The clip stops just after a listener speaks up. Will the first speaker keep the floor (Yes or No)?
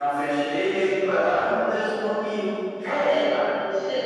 No